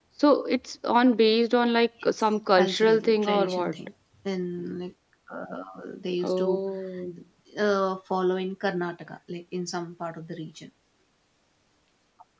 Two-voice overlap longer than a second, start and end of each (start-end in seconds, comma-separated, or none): 2.6-3.8